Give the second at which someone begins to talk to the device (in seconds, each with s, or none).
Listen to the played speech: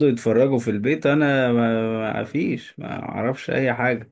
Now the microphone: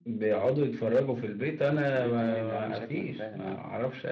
1.6 s